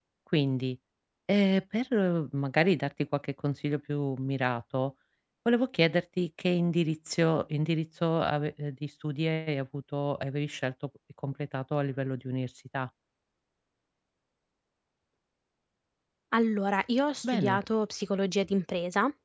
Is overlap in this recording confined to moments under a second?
Yes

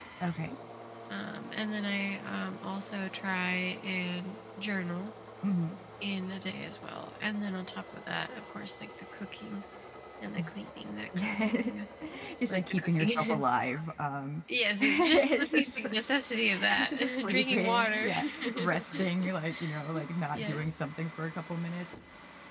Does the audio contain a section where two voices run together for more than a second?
Yes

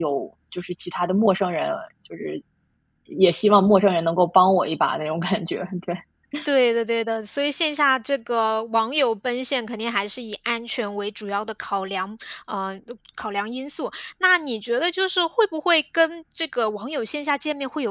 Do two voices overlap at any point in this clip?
No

